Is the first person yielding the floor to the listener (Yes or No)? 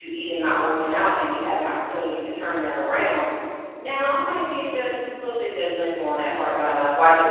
No